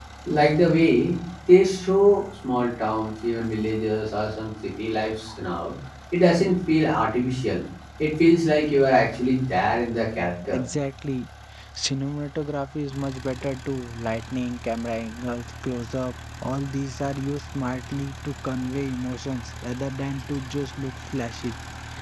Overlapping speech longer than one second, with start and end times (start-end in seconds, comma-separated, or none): none